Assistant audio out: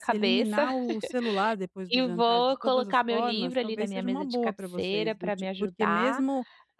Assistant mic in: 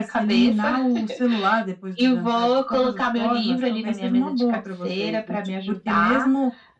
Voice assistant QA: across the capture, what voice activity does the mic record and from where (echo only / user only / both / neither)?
echo only